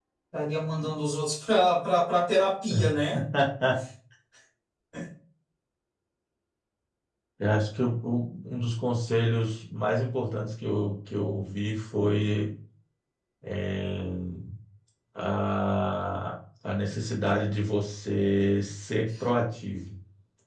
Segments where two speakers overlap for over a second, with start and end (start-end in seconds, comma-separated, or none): none